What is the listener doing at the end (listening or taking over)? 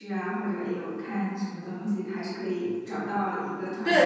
taking over